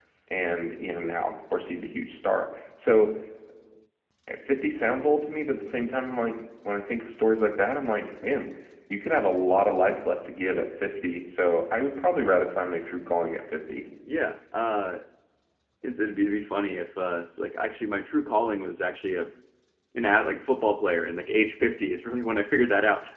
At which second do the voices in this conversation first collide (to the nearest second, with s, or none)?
none